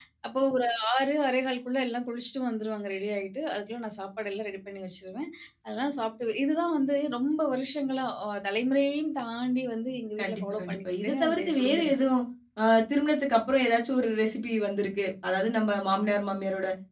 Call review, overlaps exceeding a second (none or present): present